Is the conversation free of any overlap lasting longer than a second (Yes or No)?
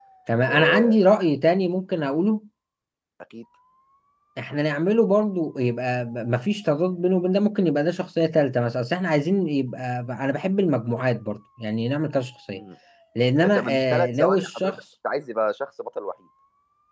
No